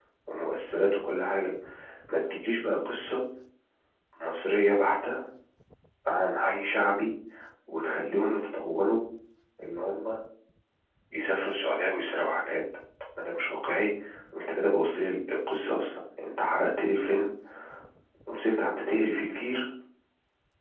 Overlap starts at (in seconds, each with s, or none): none